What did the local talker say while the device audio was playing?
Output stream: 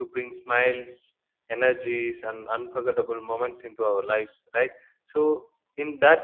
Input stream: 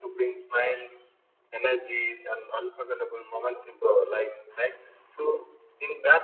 none

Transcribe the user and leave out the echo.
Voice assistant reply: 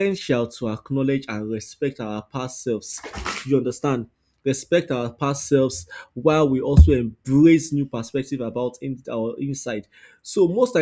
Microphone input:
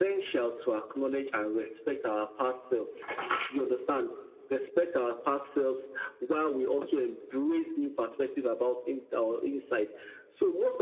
none

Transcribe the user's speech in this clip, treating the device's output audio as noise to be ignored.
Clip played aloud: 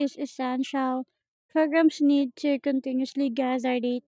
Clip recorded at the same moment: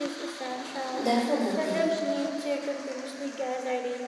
Definitely.

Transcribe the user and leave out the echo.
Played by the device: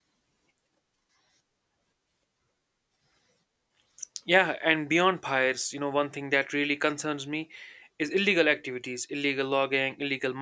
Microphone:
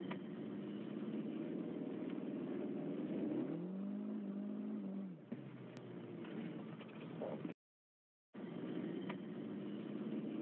none

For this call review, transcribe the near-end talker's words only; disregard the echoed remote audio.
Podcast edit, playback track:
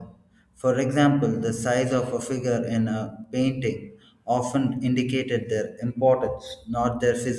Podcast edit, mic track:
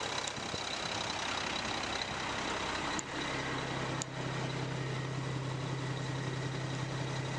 none

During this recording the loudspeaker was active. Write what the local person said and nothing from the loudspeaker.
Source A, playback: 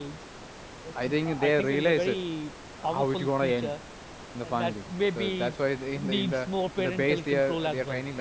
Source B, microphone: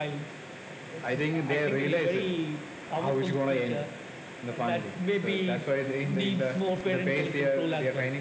none

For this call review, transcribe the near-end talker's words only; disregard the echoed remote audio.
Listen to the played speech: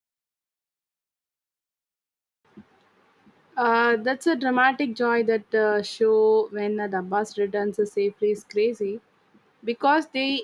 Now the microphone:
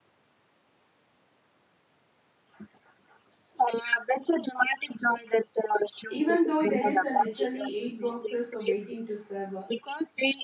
even though there is uh, literally eight boxes so waiting to serve uh,

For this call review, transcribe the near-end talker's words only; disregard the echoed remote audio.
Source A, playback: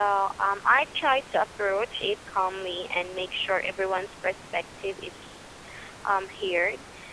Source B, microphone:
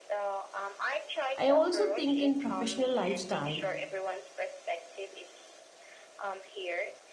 I also think in professional lifestyle,

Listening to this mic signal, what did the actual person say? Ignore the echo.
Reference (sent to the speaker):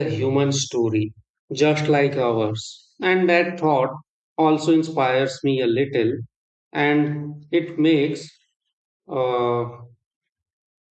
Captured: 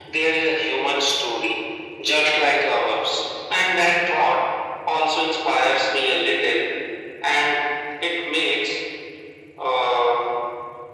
none

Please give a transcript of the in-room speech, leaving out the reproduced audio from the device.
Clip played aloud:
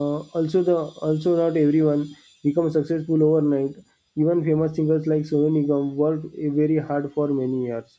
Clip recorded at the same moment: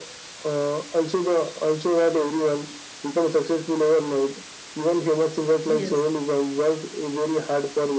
Yes,

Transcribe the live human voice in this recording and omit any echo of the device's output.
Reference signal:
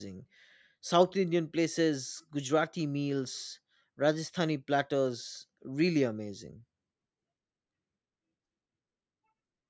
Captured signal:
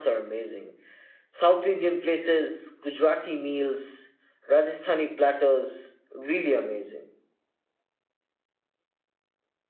none

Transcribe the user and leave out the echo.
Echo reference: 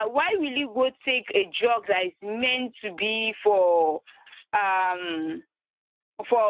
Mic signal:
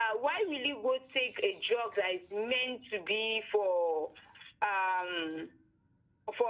none

